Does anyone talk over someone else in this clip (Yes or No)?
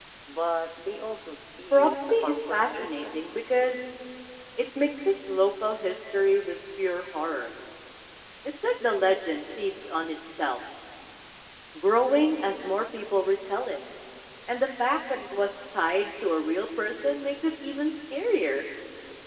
Yes